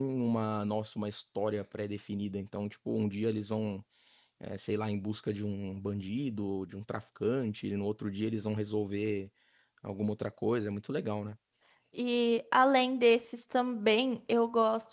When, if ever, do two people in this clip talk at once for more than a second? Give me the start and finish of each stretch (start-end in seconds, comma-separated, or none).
none